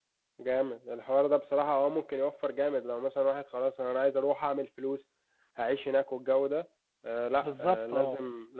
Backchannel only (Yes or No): Yes